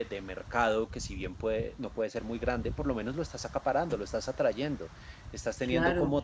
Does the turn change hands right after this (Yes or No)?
No